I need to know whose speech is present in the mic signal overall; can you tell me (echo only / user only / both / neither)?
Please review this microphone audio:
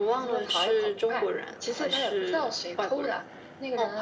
echo only